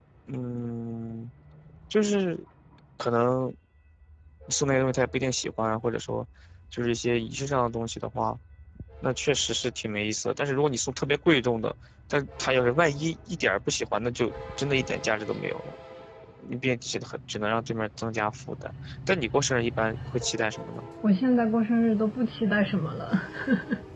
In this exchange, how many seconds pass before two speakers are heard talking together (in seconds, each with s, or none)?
none